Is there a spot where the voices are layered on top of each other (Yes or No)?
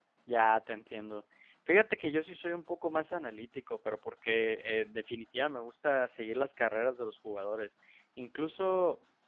No